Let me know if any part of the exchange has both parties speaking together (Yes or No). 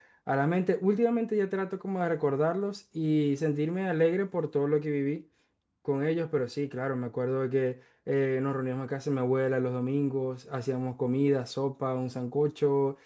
No